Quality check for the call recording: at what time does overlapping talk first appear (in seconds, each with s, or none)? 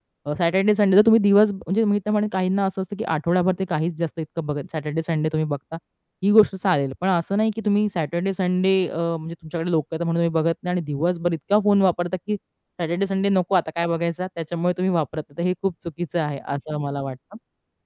none